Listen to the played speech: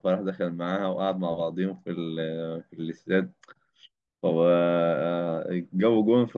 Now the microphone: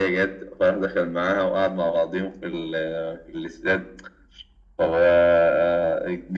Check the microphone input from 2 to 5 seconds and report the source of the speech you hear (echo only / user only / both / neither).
echo only